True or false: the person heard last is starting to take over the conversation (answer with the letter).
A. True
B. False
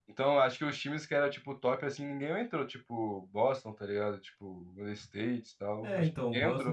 A